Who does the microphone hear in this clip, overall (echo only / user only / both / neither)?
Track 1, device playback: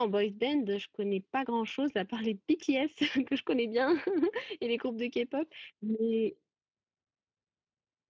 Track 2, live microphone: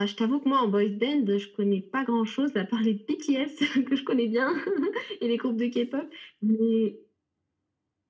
echo only